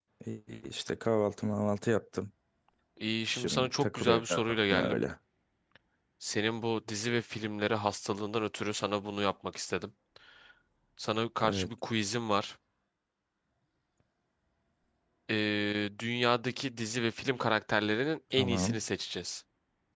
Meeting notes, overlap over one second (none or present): present